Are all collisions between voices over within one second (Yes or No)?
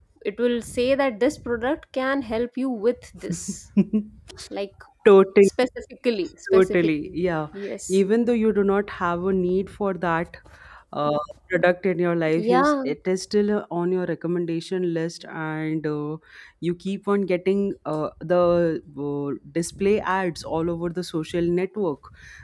Yes